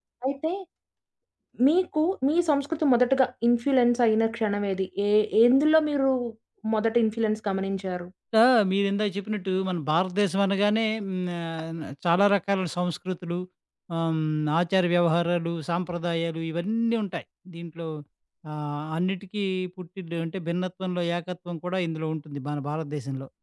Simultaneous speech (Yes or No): No